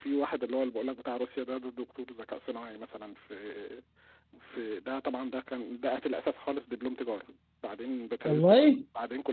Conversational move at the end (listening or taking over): listening